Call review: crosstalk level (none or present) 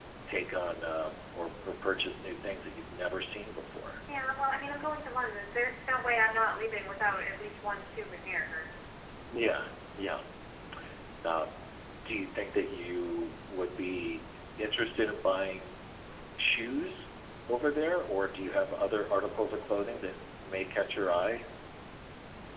none